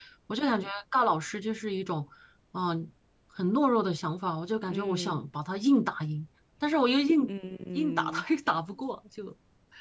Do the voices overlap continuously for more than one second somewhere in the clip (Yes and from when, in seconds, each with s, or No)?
No